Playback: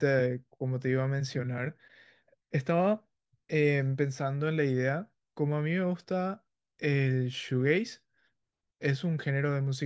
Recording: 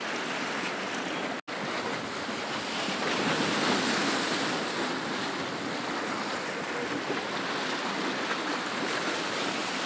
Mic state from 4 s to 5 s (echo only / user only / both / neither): neither